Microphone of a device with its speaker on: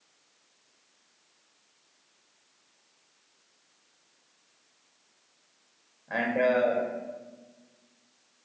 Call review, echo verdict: none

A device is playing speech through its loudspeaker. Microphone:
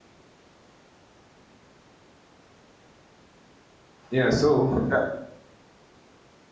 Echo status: none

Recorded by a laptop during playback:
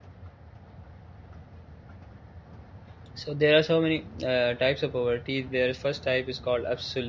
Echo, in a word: none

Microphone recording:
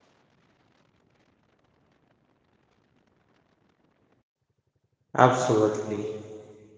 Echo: none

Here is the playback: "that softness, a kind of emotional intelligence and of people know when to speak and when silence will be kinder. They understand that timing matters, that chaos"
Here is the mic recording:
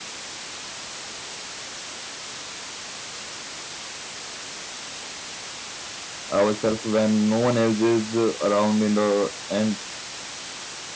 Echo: none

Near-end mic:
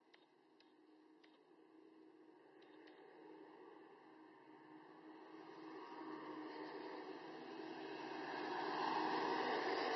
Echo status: none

